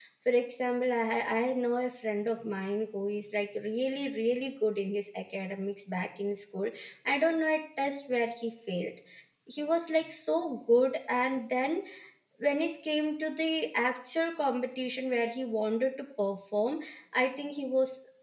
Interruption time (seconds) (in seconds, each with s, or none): none